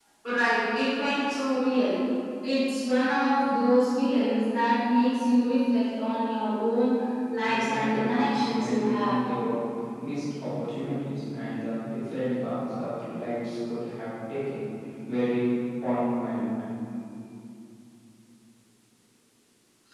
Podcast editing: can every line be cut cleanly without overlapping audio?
No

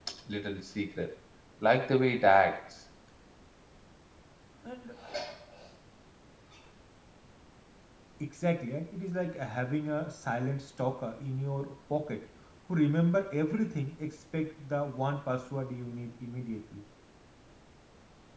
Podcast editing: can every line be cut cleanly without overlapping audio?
Yes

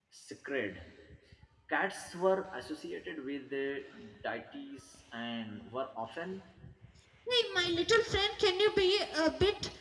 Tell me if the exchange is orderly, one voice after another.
Yes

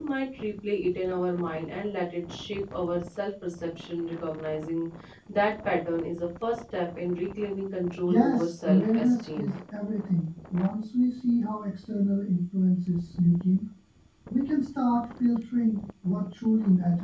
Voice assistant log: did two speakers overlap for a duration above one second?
Yes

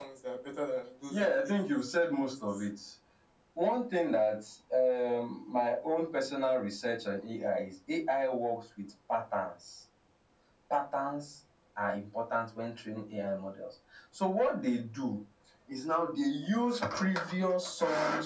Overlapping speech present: Yes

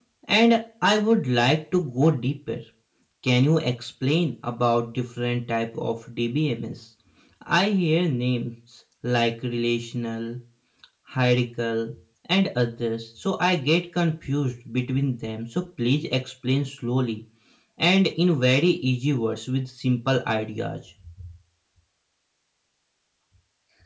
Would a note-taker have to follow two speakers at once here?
No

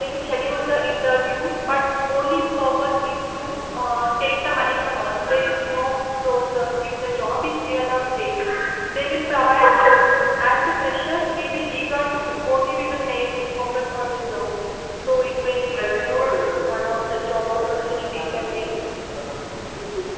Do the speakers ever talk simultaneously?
Yes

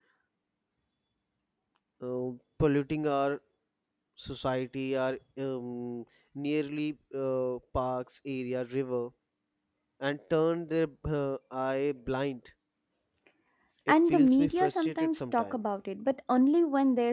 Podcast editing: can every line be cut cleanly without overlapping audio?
No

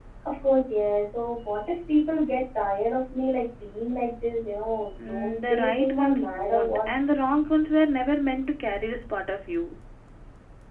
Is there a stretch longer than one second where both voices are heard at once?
Yes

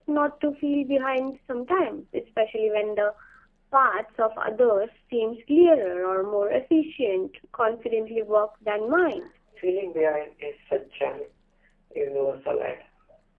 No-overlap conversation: Yes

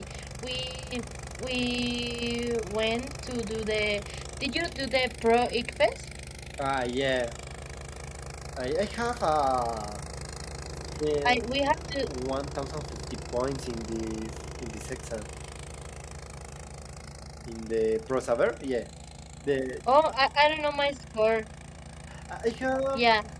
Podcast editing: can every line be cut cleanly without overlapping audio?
Yes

